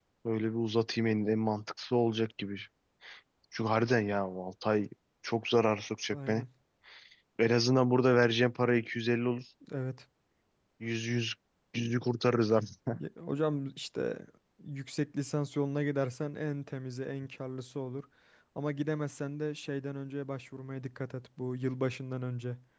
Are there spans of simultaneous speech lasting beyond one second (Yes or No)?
No